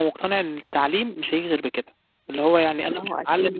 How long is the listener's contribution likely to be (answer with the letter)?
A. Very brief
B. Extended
A